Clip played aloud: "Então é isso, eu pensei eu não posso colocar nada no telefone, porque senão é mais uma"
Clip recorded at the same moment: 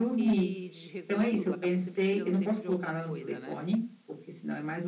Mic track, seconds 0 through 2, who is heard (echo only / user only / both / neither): both